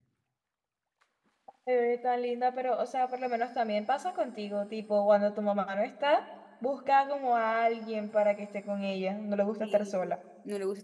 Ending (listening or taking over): taking over